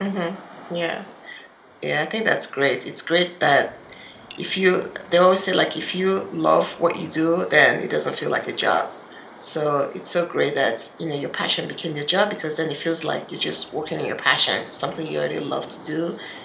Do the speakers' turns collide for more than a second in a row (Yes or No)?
No